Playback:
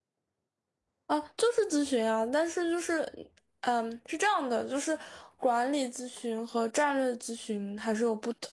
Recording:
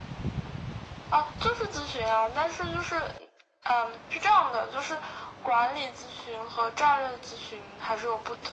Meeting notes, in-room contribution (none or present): none